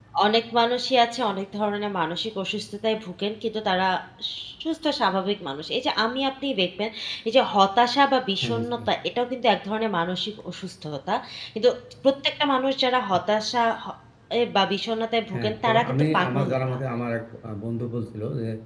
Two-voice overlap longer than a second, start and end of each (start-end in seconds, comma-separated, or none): 15.3-16.8